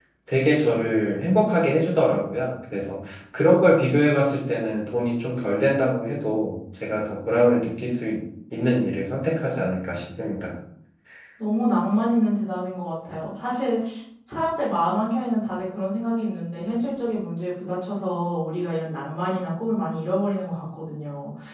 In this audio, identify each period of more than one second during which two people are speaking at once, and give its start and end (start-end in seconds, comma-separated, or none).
none